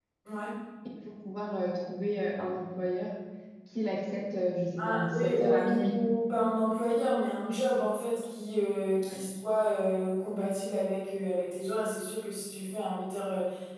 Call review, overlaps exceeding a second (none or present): present